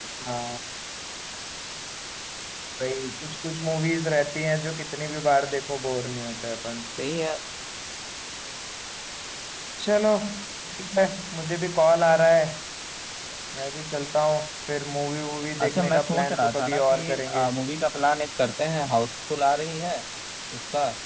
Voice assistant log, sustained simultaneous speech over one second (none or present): present